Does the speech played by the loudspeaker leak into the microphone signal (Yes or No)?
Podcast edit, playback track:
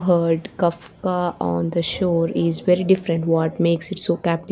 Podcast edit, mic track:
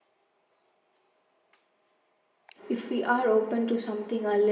No